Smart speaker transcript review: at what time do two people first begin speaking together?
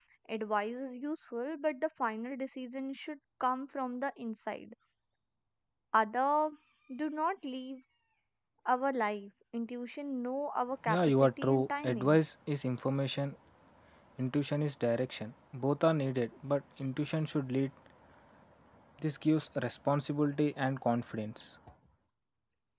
11 s

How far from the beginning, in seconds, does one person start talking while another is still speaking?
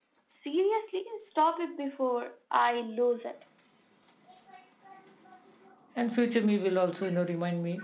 none

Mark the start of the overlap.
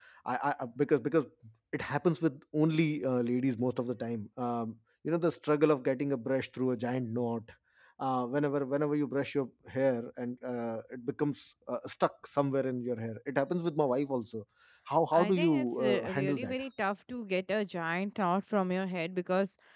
15 s

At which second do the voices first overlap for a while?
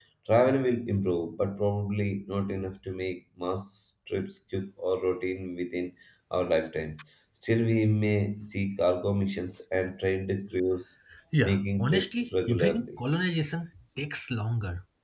11 s

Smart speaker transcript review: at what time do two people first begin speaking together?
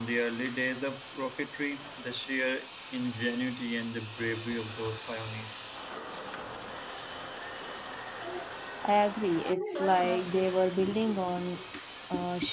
none

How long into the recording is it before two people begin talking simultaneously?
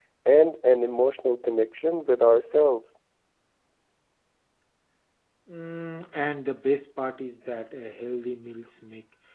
none

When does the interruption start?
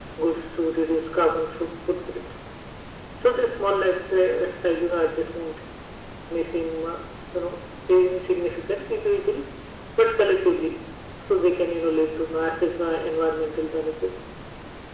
none

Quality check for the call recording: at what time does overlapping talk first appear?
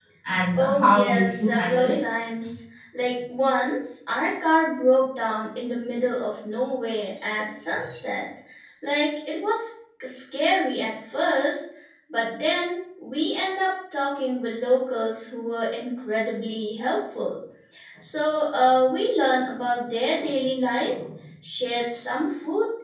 1 s

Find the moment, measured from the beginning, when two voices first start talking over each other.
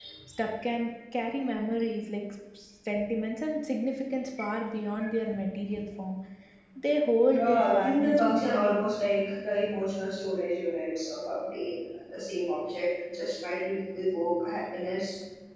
7 s

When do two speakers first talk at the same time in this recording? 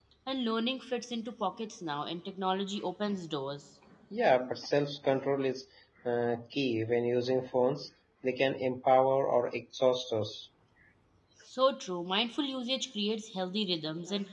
none

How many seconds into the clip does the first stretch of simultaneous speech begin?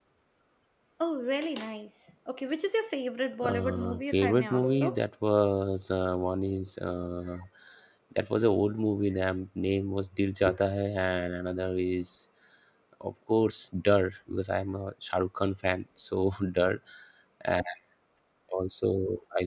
3 s

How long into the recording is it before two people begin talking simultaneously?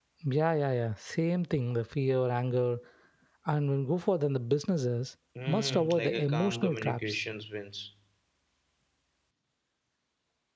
5 s

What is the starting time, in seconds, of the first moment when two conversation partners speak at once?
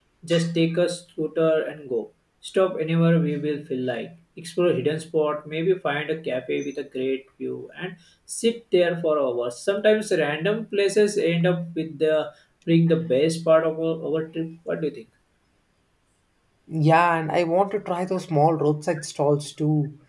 none

